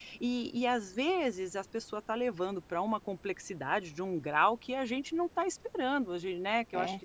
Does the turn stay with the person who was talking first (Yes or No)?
Yes